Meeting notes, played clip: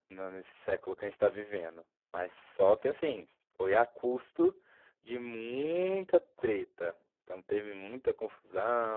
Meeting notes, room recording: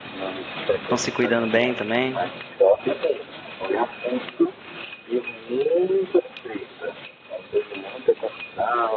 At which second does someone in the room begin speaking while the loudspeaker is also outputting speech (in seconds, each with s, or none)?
0.8 s